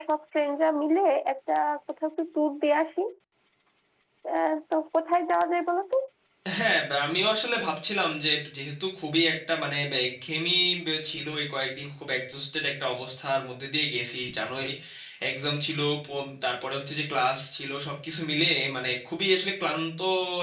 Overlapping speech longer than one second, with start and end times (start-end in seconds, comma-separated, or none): none